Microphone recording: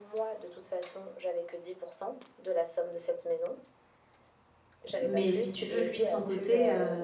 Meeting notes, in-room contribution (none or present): present